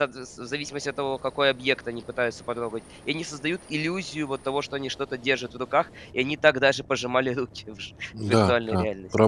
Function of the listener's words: taking over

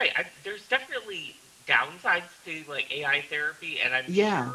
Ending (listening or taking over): listening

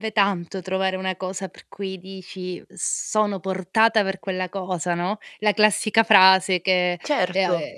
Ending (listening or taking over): listening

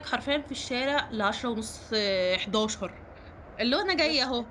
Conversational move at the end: listening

